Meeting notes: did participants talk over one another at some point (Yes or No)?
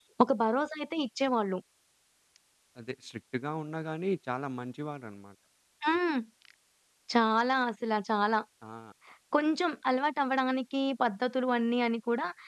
No